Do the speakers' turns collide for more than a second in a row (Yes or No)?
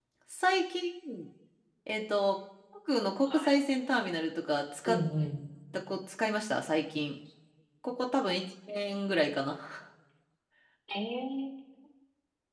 No